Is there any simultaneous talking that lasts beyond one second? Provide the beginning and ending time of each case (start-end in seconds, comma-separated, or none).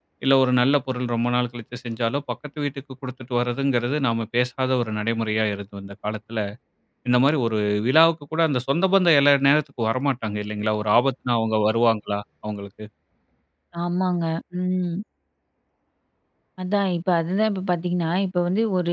none